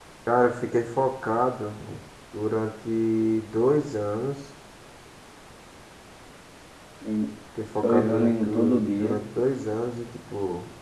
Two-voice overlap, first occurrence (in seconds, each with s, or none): 7.8 s